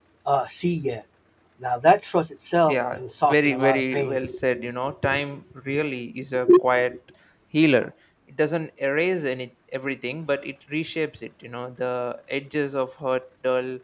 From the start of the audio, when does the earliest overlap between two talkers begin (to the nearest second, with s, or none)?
3 s